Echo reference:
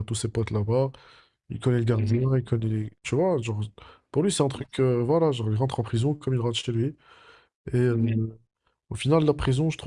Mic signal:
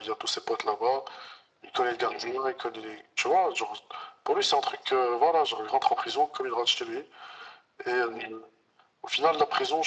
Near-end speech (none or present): none